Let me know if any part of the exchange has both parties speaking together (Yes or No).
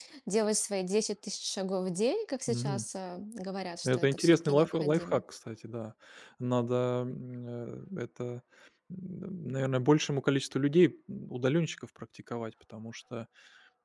Yes